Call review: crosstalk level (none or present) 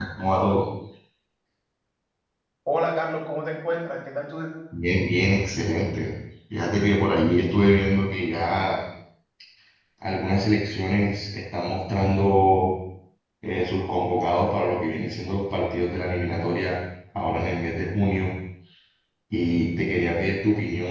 none